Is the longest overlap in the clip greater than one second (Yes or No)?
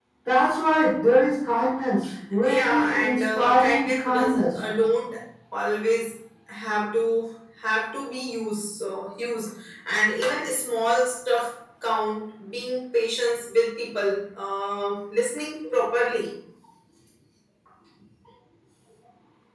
Yes